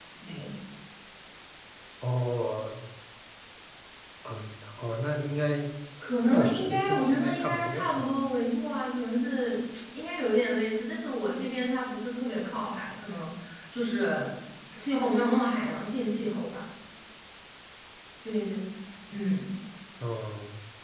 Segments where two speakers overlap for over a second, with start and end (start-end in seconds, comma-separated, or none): 6.3-8.2